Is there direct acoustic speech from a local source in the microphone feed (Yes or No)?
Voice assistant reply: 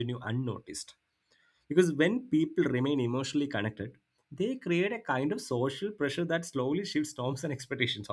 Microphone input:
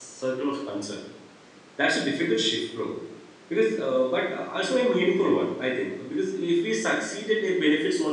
Yes